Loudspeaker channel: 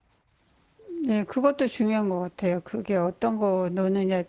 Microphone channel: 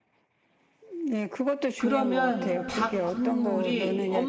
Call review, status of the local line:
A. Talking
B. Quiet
A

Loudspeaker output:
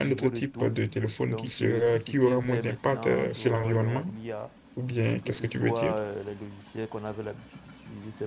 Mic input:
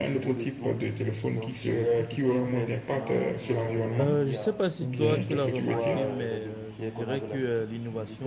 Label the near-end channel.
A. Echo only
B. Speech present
B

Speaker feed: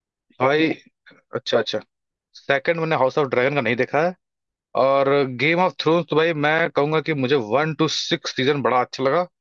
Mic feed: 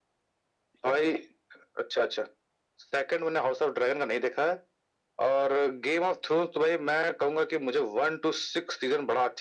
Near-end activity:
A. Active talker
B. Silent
B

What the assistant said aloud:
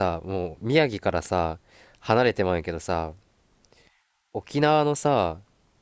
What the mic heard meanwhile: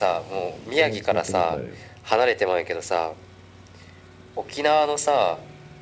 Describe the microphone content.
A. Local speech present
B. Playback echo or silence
A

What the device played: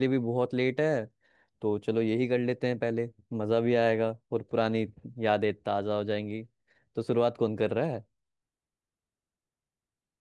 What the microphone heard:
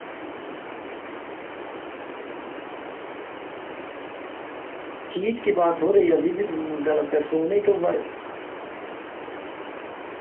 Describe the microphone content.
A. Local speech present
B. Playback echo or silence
A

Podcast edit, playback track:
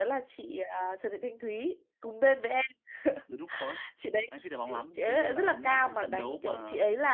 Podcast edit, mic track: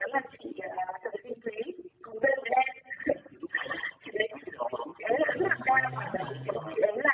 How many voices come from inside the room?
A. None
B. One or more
B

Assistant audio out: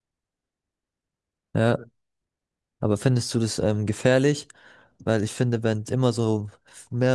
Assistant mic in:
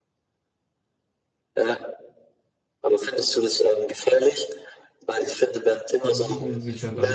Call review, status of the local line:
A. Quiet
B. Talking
B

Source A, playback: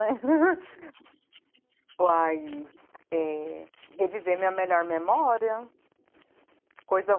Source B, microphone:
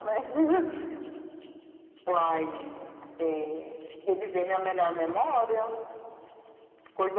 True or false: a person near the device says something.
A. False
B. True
A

